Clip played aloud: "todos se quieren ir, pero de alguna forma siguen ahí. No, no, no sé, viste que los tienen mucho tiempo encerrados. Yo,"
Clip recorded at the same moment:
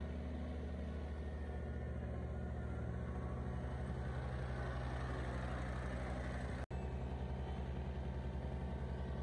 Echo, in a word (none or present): none